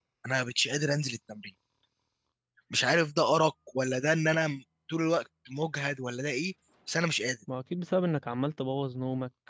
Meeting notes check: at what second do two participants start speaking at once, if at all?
none

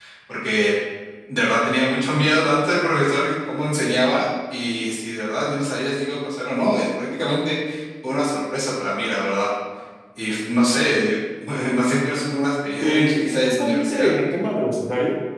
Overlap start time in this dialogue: 12.8 s

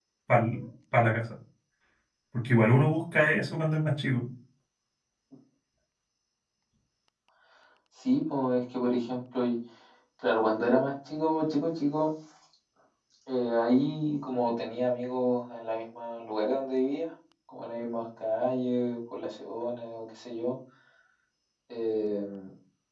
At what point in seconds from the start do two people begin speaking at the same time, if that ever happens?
none

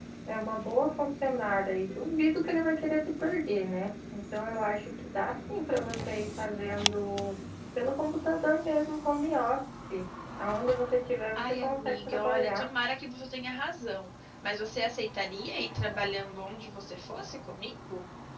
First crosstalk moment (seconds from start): 11.4 s

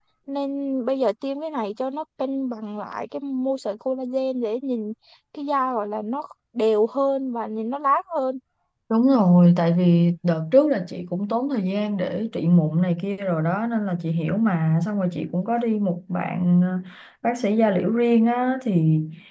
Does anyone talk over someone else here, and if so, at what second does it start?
none

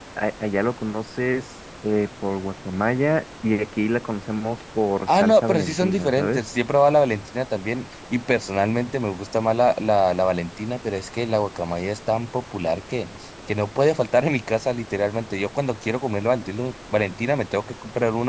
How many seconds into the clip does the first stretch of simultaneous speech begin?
5.1 s

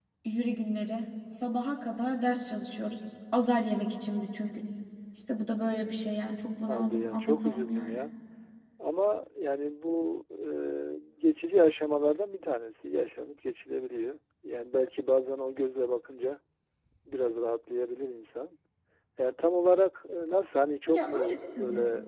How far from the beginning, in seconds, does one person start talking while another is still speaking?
6.7 s

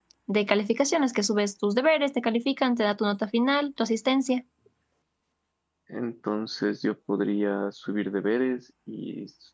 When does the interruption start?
none

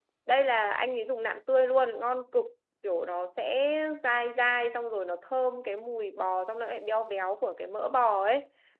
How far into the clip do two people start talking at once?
none

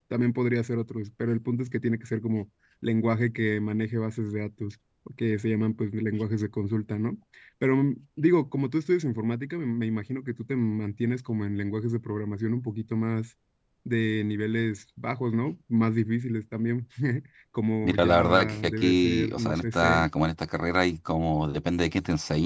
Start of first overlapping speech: 17.8 s

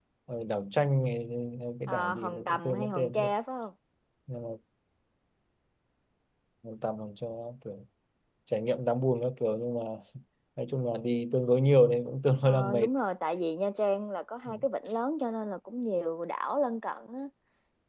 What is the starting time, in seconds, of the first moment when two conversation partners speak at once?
1.9 s

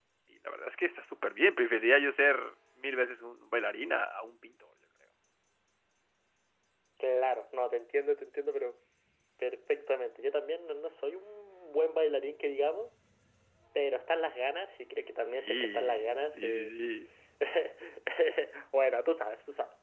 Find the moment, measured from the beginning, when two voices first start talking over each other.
15.3 s

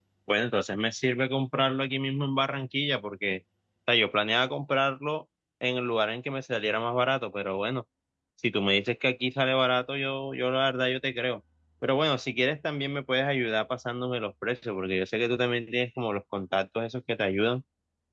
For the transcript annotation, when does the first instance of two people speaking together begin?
none

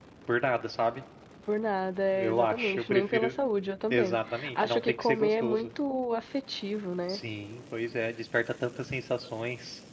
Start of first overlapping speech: 2.1 s

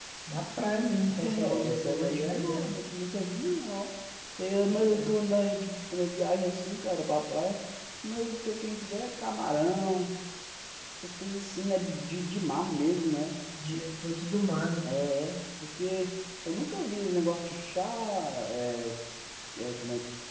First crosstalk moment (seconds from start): 1.2 s

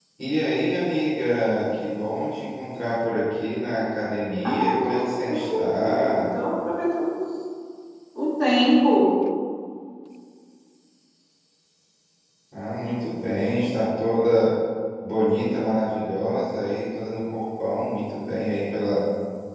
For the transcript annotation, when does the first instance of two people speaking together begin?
4.4 s

